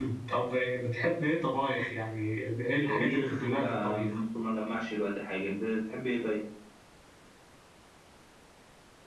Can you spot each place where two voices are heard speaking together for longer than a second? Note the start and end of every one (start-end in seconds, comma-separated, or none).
2.9-4.2